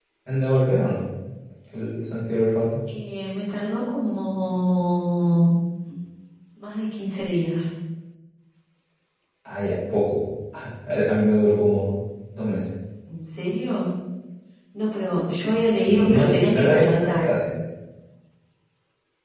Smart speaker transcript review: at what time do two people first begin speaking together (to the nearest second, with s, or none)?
16 s